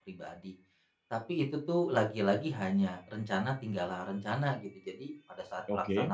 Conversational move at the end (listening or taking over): listening